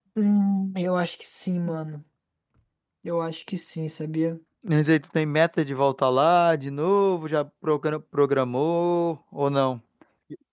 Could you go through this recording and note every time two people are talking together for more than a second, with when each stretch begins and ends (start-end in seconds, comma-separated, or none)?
none